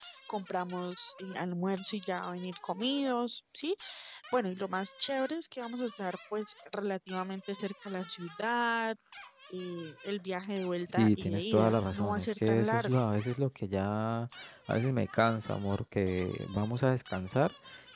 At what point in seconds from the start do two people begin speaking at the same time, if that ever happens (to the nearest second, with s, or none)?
11 s